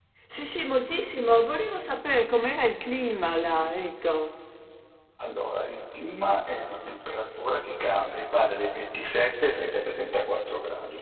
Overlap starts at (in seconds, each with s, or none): none